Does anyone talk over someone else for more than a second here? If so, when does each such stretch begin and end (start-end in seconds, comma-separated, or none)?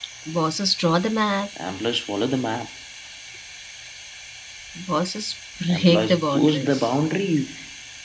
5.7-6.9